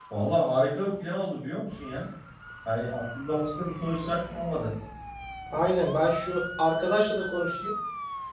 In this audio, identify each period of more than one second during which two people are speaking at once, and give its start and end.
none

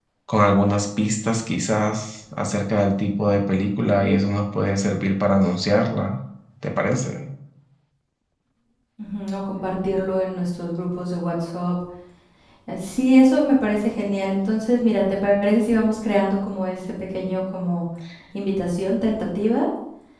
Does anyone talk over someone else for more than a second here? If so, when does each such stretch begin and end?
none

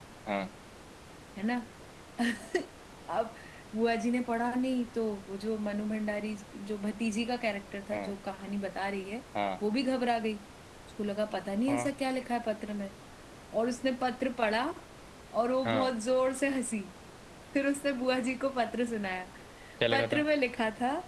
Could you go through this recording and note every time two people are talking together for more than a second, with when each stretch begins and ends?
none

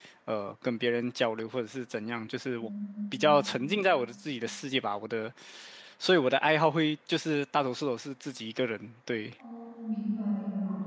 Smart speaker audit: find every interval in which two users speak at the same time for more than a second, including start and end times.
none

